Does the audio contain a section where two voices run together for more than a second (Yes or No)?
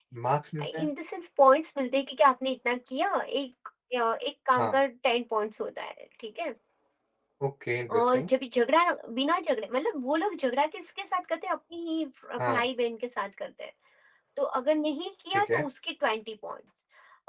No